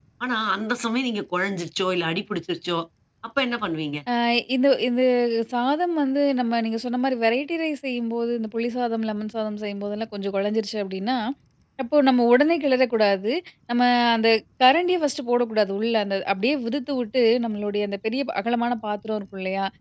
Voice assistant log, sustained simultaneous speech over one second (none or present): none